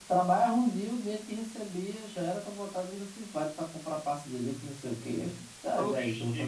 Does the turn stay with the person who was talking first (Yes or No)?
No